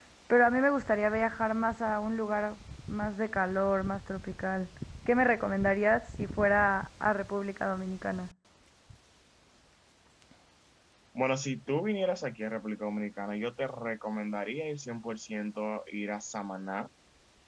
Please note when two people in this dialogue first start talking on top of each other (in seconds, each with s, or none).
none